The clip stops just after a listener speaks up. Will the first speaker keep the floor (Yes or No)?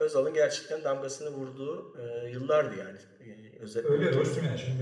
No